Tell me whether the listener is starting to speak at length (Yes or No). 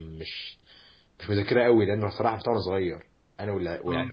No